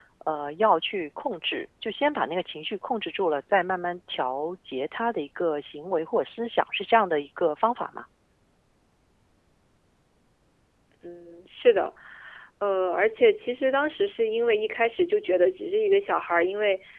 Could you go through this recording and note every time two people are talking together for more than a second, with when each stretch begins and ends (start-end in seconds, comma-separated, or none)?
none